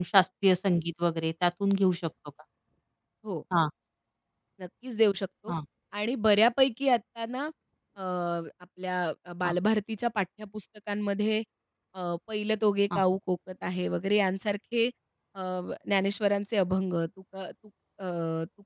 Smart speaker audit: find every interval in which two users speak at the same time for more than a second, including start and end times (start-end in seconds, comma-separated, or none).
none